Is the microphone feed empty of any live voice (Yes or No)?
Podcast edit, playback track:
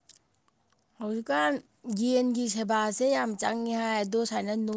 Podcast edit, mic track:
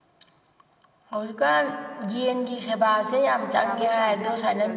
No